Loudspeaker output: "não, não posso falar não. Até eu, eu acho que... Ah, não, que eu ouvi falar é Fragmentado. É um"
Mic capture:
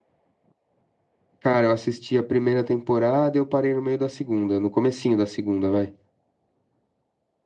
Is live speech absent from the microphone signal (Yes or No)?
No